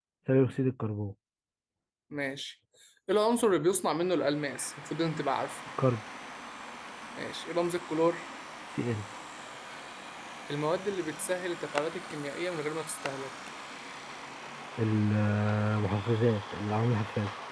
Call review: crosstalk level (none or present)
none